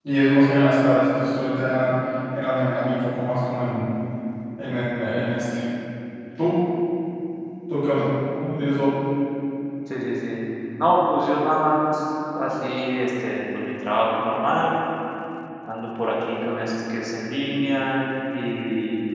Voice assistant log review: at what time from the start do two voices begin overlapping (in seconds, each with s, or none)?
none